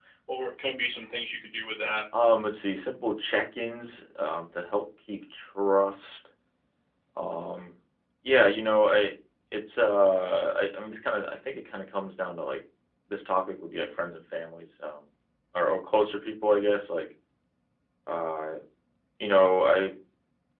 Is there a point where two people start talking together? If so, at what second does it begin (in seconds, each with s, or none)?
none